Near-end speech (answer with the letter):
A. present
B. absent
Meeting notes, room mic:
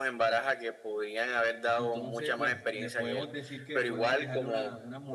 A